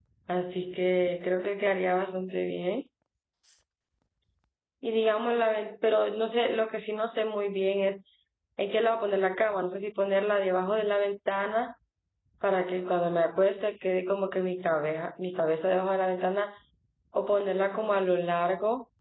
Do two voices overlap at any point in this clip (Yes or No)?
No